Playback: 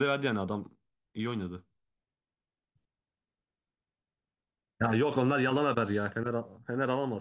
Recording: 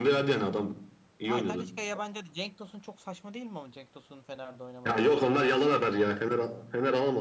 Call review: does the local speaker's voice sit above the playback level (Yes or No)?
No